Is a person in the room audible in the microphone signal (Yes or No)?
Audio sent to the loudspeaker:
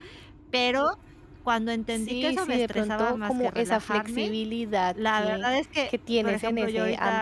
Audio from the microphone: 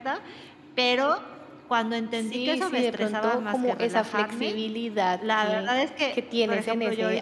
Yes